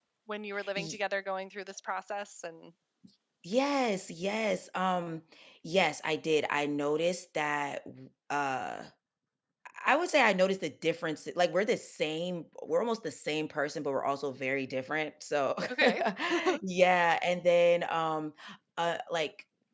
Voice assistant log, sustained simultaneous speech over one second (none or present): none